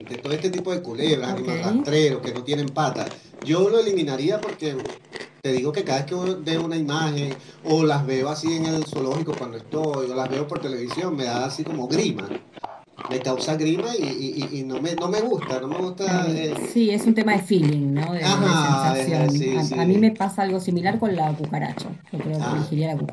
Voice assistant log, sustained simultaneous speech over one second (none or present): present